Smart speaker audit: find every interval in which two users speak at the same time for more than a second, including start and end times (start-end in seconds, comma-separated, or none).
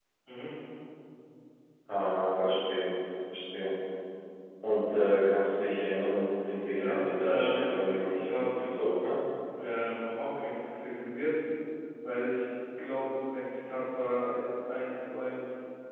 6.8-8.5